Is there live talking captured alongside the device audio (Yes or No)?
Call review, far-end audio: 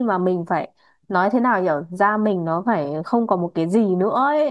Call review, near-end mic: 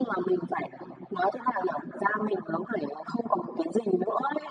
No